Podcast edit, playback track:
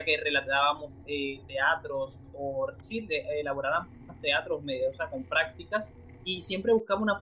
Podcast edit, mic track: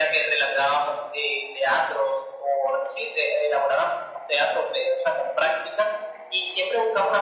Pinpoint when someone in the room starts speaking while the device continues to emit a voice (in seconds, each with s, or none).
none